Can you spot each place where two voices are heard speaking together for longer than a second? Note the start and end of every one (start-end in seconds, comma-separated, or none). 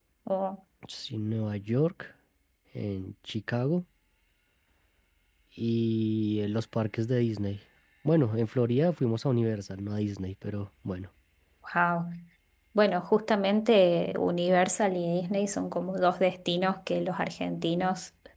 none